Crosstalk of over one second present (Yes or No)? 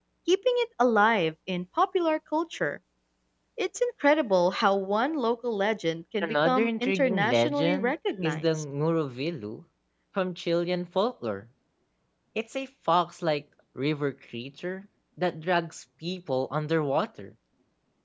Yes